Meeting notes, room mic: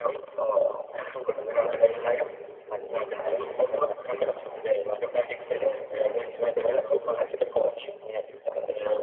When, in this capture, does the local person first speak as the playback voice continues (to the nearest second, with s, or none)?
1 s